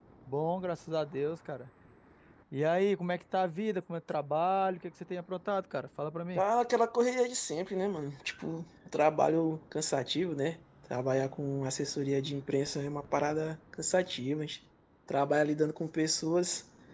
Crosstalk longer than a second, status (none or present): none